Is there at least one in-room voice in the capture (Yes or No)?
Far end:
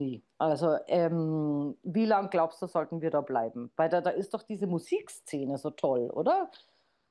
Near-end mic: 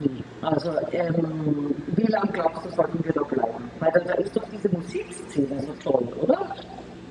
No